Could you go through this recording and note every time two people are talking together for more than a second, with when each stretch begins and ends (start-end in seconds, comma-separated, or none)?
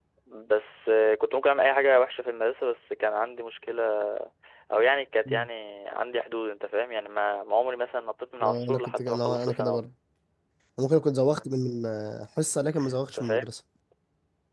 8.4-9.8